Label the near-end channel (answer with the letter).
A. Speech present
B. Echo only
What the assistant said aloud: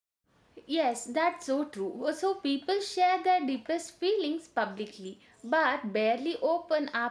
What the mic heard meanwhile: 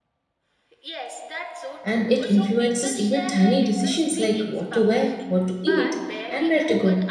A